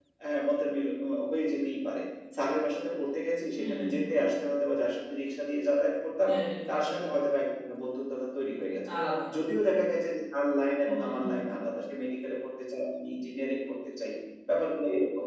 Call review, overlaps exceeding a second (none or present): none